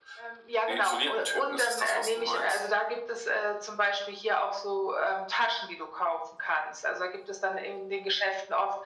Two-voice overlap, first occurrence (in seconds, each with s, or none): 0.7 s